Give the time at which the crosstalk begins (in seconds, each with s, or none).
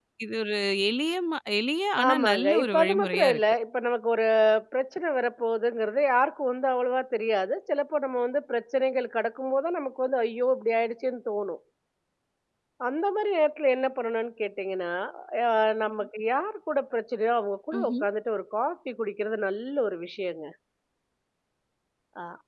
2.1 s